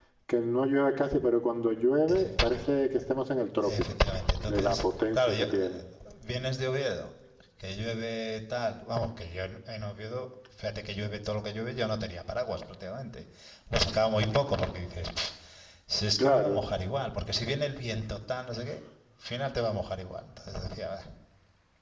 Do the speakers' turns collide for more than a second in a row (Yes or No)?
Yes